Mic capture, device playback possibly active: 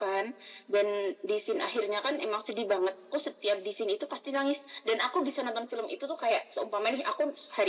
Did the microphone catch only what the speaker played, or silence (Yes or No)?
Yes